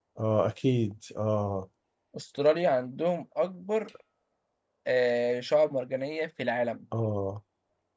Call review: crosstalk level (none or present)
none